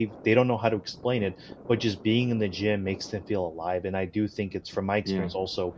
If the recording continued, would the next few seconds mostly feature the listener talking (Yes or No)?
No